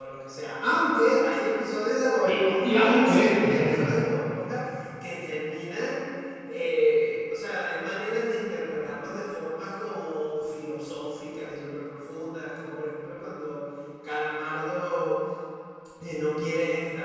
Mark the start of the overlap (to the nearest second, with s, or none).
2 s